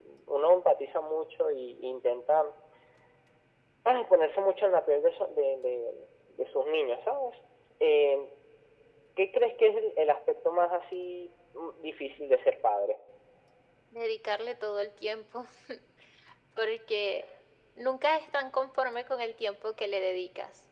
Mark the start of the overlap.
none

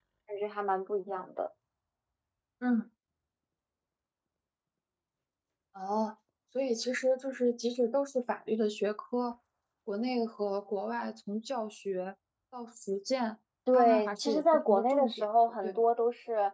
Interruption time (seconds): 13.7 s

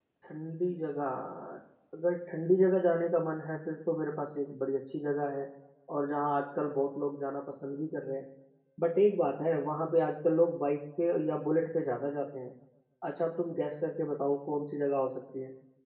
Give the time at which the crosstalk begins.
none

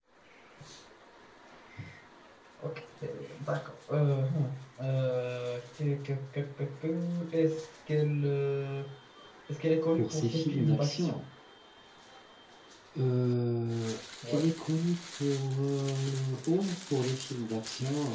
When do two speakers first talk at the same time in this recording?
10.0 s

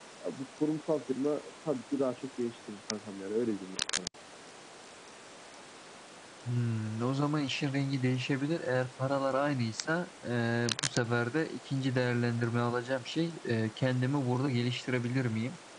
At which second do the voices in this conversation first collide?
none

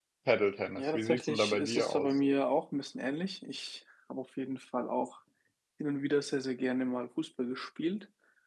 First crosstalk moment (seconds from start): 0.8 s

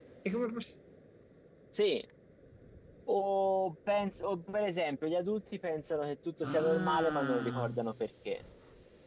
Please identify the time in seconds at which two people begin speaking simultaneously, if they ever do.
6.4 s

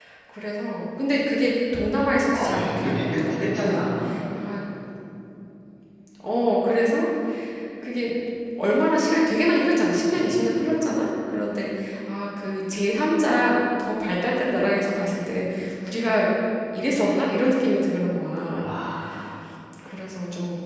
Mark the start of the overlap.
2.3 s

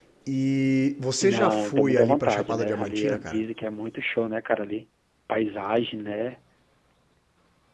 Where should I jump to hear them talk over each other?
1.2 s

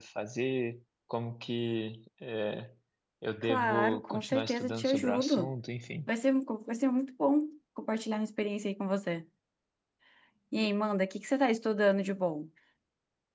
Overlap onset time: 3.4 s

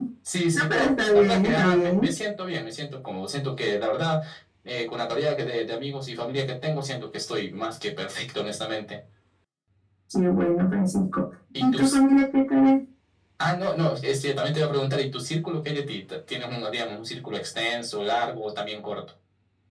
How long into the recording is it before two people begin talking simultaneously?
0.5 s

